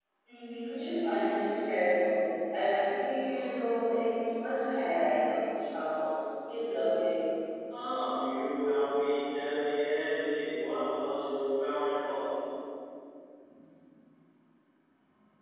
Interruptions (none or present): none